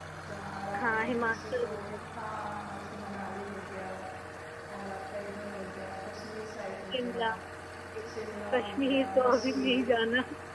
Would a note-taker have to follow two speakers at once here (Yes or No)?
Yes